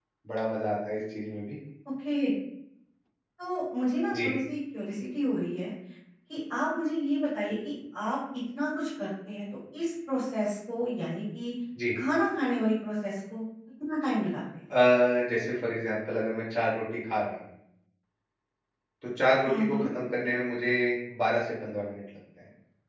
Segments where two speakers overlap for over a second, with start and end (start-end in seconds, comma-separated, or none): none